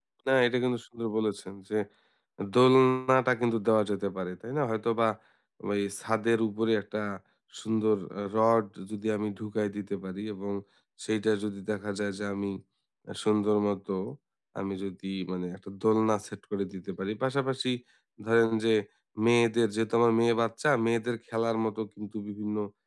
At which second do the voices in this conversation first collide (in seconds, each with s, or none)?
none